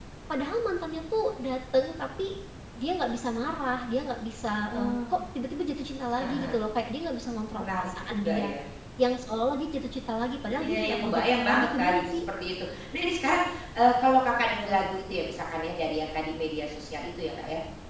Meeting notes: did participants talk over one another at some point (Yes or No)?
Yes